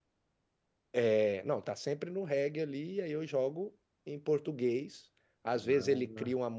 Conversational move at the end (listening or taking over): listening